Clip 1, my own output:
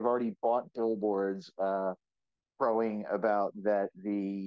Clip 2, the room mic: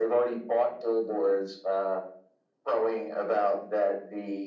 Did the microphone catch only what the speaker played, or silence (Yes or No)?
Yes